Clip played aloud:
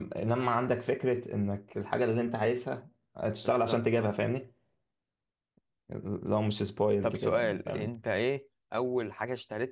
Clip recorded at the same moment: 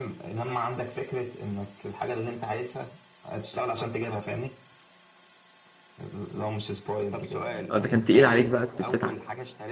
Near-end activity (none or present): present